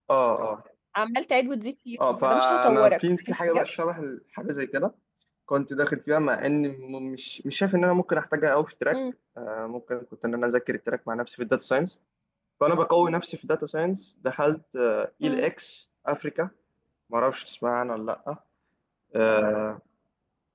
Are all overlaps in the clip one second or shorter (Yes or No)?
No